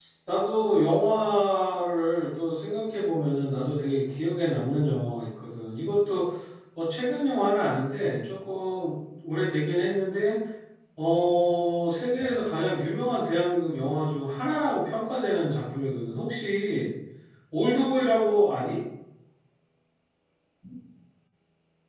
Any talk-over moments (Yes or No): No